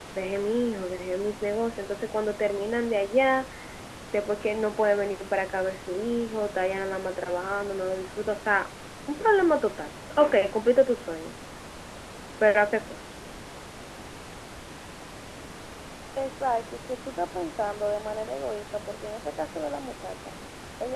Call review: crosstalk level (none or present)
none